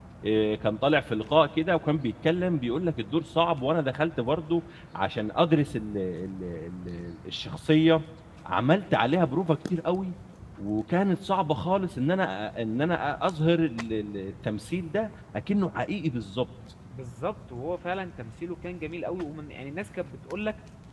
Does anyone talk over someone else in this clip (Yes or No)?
No